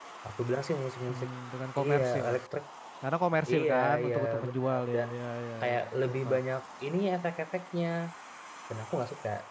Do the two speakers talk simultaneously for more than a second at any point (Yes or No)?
Yes